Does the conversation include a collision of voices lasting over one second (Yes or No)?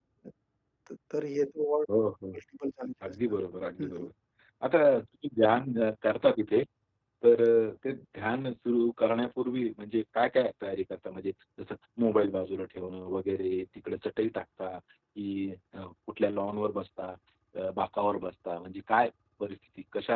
No